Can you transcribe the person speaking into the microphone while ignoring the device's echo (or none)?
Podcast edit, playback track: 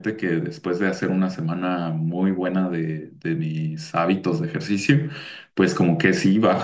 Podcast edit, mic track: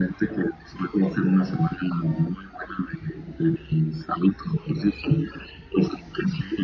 none